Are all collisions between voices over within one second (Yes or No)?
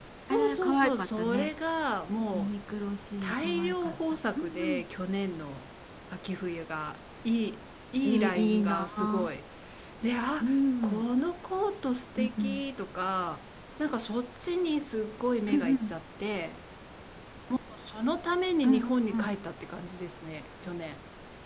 No